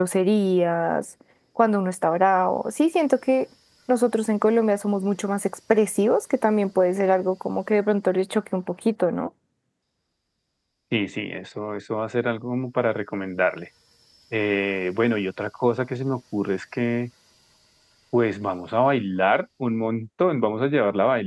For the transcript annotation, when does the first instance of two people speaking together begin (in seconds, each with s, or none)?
none